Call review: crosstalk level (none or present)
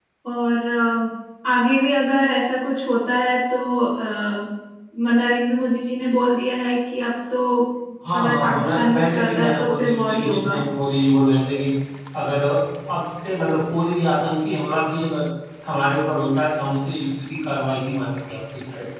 present